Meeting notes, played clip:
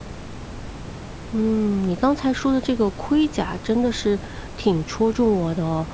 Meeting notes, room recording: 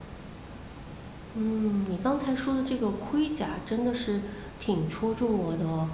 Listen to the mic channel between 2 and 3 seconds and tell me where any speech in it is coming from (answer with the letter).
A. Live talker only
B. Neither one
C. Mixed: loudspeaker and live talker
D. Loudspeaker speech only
D